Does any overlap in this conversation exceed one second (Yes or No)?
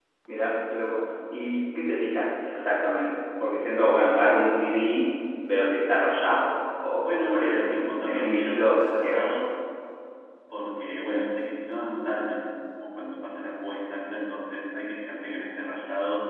Yes